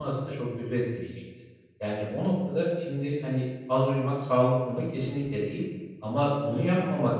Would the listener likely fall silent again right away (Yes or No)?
Yes